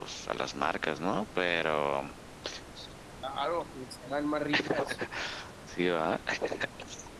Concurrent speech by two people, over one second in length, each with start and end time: none

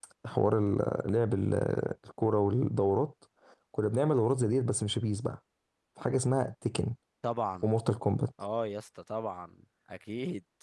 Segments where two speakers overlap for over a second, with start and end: none

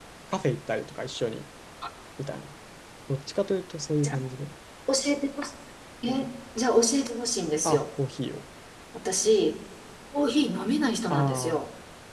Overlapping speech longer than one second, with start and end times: none

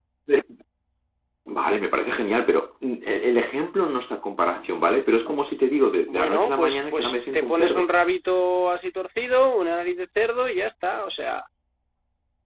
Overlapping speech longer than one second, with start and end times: 6.1-7.9

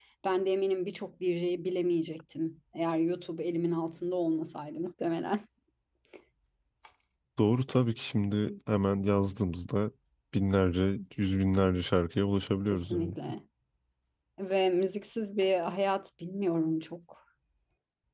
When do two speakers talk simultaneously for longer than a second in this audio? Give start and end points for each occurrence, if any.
none

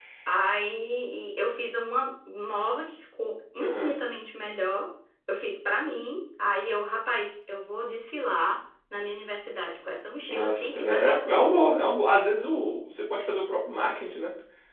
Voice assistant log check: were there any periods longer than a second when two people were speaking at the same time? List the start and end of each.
10.3-11.6

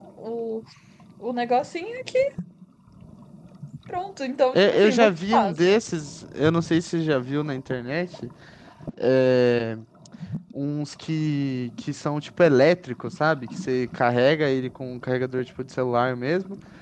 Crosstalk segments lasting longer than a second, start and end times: 4.5-5.8

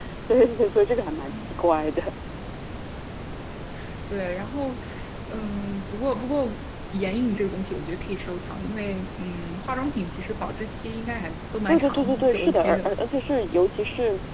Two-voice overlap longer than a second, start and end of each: 11.7-12.9

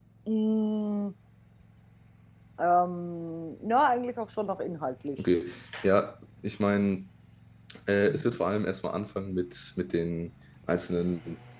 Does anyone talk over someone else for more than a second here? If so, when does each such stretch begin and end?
none

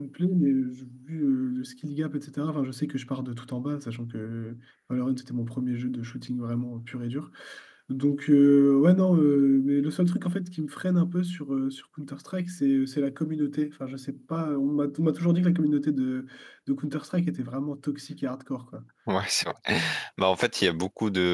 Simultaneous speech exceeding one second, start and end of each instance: none

